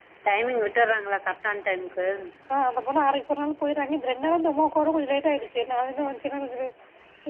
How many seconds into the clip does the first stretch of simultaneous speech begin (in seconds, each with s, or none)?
none